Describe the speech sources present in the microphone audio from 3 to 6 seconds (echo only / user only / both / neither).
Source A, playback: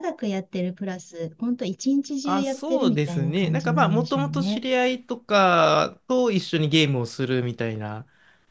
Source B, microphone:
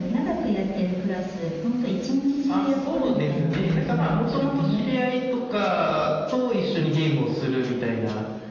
echo only